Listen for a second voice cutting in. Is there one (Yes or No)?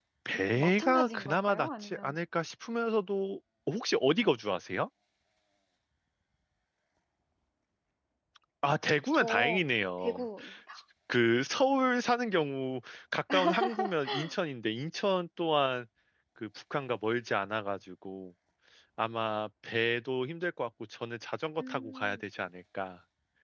Yes